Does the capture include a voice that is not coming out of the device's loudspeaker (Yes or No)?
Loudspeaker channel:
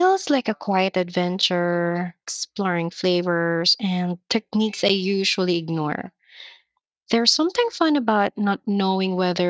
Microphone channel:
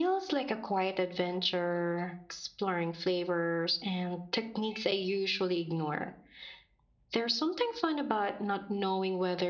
No